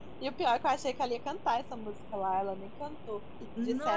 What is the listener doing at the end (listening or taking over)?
listening